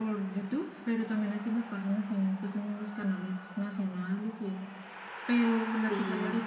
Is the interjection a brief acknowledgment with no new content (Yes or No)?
Yes